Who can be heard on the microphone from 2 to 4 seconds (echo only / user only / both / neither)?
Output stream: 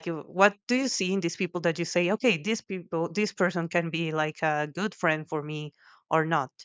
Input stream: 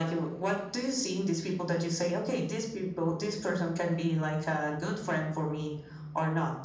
echo only